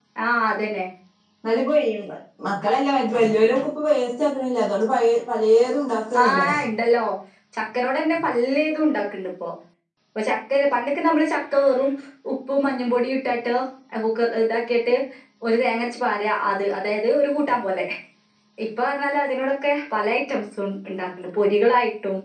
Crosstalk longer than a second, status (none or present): none